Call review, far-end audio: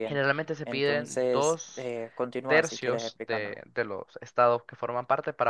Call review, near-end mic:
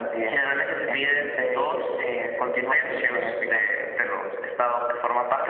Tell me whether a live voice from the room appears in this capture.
No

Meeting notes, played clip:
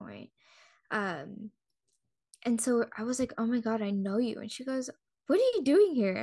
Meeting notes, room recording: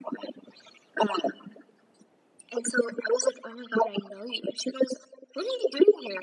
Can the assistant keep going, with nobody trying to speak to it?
Yes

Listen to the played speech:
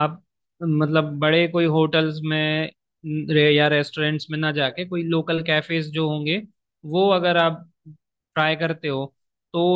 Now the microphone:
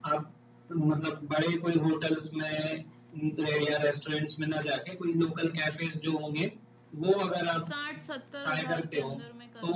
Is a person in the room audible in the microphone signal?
Yes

